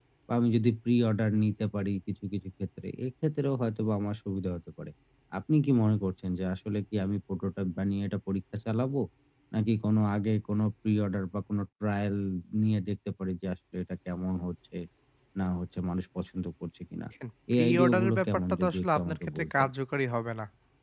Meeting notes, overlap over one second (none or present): present